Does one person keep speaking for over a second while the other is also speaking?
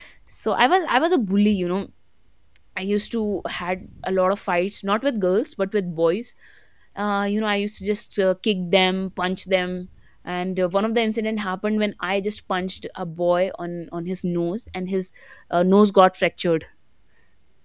No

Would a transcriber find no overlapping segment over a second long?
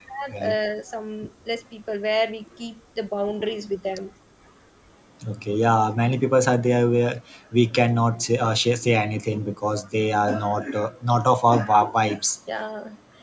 Yes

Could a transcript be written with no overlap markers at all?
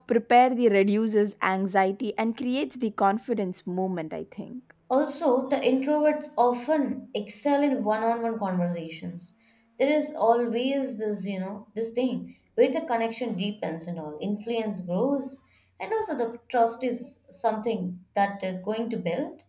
Yes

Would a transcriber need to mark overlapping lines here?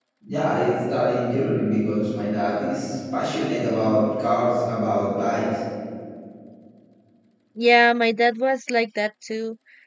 No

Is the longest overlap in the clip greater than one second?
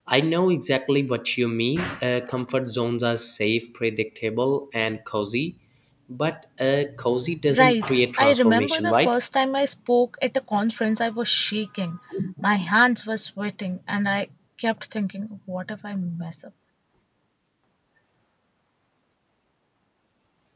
Yes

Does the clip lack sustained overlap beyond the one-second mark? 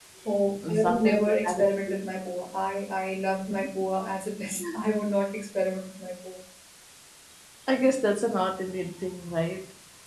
No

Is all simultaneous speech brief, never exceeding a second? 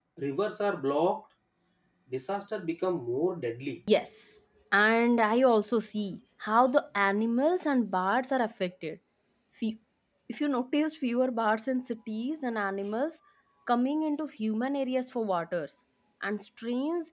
Yes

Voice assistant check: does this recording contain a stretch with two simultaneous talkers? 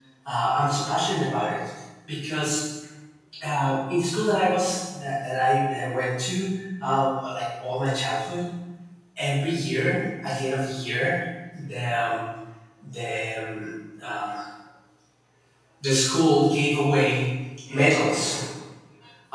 No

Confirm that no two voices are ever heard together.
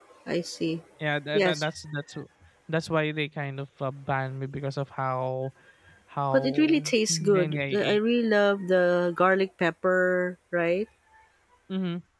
No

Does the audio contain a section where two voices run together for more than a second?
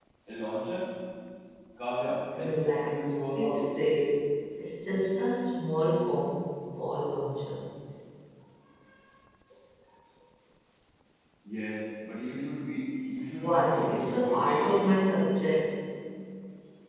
Yes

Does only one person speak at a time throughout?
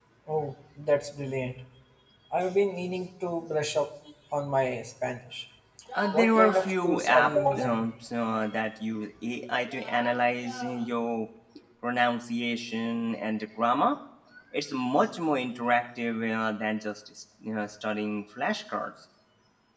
No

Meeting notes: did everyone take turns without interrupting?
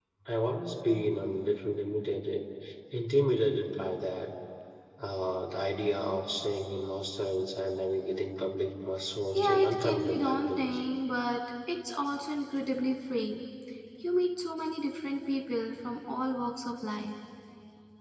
No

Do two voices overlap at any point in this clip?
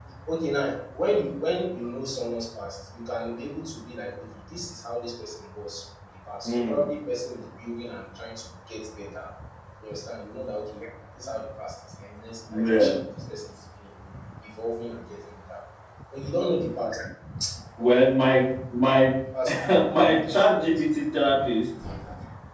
Yes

